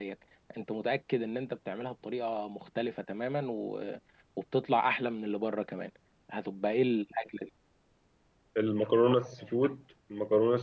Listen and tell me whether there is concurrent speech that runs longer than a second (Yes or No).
No